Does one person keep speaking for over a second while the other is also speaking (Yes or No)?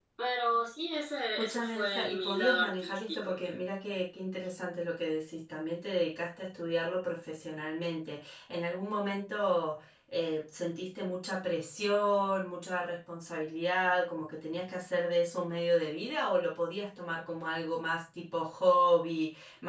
Yes